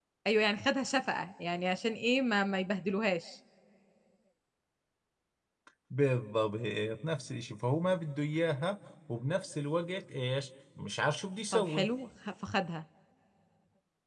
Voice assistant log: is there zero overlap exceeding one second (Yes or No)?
Yes